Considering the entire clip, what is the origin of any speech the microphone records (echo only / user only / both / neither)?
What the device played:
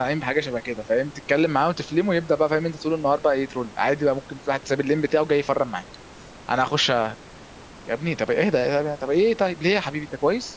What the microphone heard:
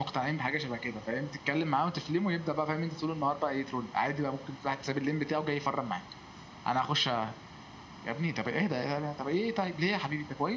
echo only